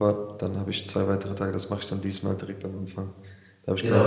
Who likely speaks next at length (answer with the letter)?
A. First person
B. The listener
B